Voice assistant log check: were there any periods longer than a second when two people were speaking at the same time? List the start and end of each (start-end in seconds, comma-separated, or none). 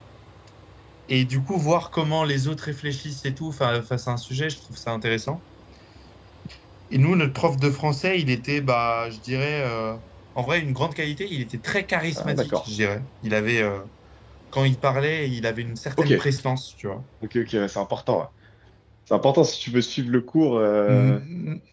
none